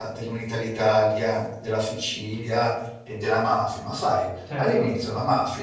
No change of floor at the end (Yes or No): Yes